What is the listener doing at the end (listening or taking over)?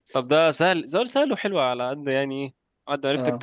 listening